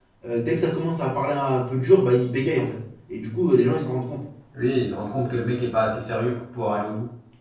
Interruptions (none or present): none